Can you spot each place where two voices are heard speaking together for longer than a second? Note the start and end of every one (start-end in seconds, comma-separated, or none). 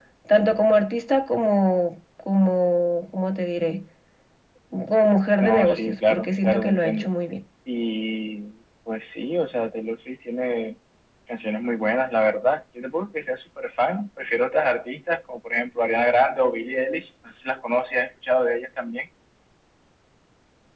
5.4-7.1